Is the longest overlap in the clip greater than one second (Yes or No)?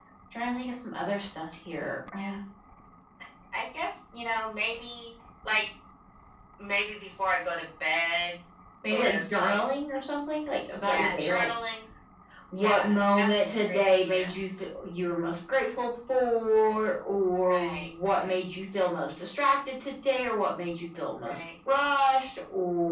Yes